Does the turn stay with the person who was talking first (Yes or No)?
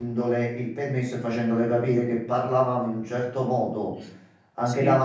Yes